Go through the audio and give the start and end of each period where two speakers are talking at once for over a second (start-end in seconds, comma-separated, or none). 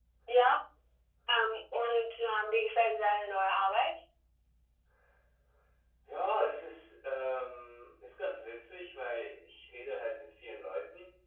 none